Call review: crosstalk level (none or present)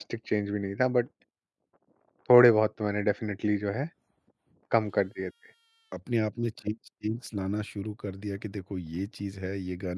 none